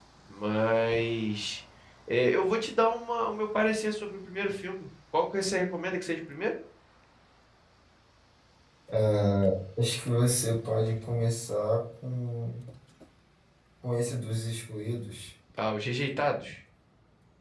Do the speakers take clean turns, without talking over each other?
Yes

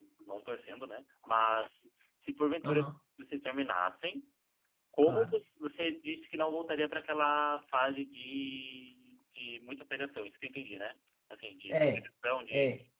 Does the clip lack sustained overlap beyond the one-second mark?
Yes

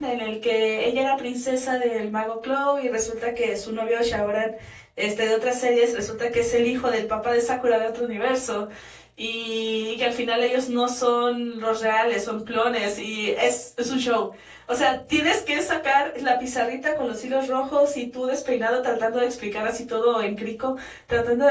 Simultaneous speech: No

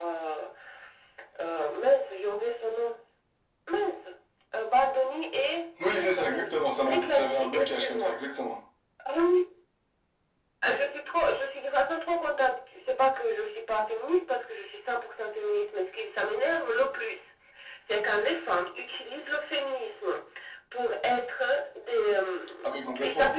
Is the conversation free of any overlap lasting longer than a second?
No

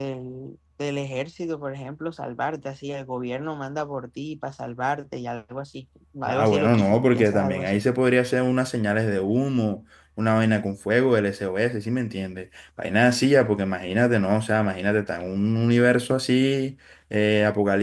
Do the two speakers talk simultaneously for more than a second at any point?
Yes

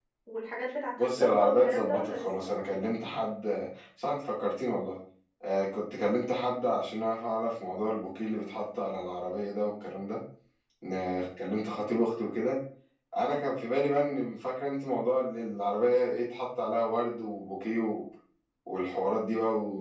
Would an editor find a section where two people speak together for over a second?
Yes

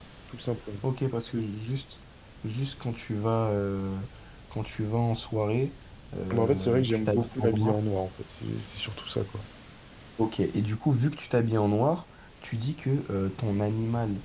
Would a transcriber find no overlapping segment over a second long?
No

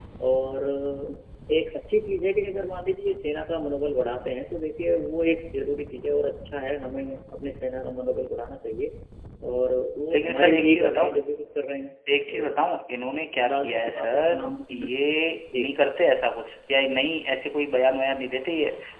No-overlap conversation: No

